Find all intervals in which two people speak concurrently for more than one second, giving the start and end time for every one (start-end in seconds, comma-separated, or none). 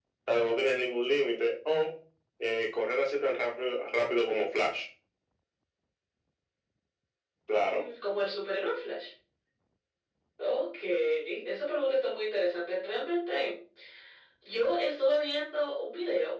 none